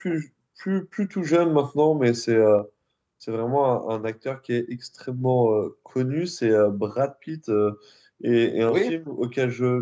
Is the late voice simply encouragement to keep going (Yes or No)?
Yes